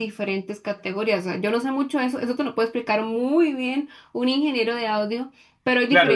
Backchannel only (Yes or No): No